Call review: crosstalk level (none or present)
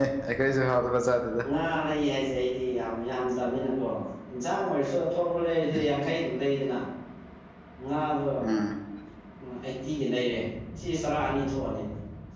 none